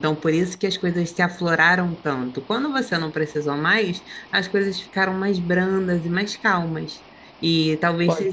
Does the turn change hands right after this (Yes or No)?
No